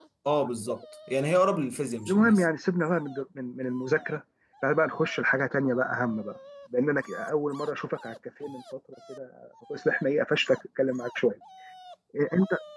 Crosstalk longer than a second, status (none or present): none